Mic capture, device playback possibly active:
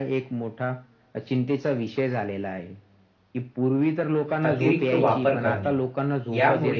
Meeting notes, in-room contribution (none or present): present